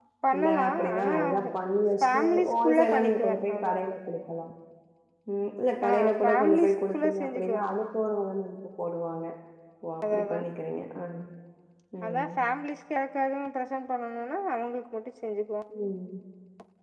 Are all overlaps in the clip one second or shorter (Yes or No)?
No